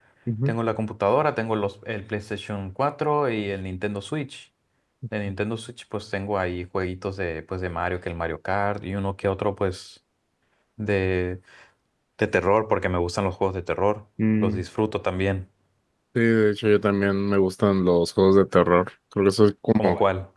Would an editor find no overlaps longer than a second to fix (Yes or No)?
Yes